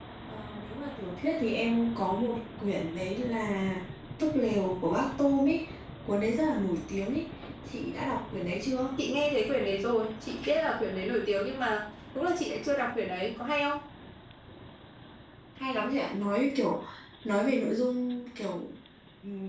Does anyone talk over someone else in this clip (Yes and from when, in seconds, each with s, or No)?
No